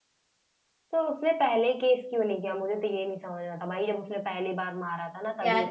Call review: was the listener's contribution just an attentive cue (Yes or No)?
No